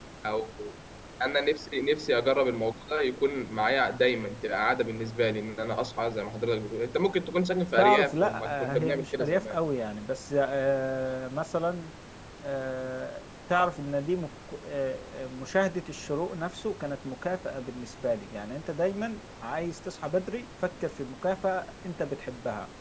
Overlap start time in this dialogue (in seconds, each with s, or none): 7.8 s